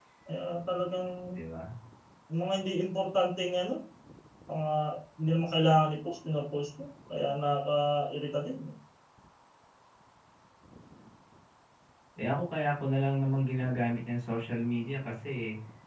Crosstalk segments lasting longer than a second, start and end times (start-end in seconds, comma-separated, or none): none